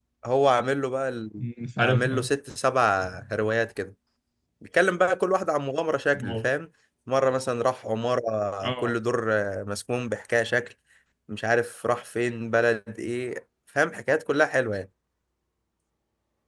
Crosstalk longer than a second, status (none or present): none